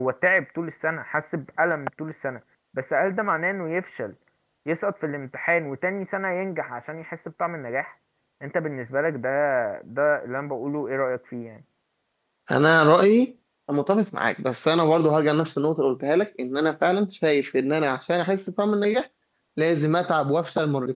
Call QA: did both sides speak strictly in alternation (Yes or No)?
Yes